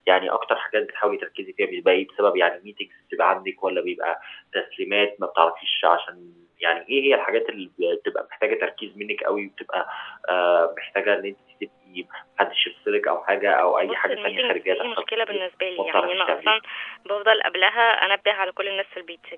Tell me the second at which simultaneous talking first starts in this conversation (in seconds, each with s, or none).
13.9 s